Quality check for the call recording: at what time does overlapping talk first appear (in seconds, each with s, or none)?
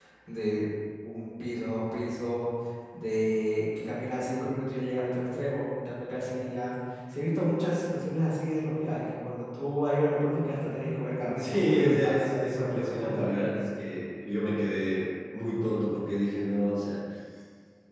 11.3 s